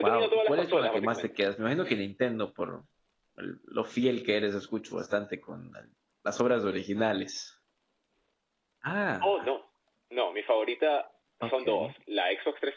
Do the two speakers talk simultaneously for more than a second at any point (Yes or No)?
Yes